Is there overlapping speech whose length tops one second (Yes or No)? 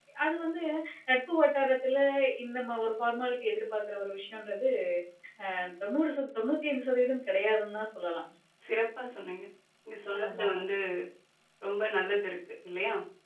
No